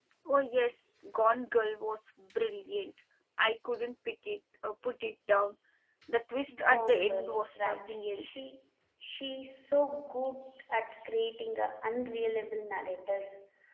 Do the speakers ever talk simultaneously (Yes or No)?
Yes